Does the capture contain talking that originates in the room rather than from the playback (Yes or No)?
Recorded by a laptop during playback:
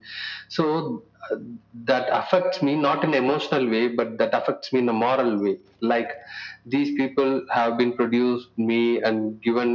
No